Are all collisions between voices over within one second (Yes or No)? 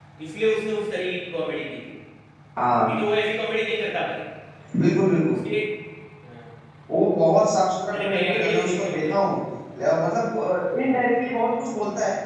No